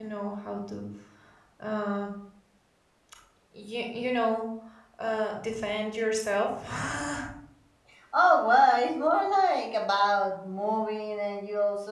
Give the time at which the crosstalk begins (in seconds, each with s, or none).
none